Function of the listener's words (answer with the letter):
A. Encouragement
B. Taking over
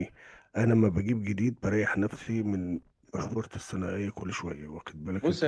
B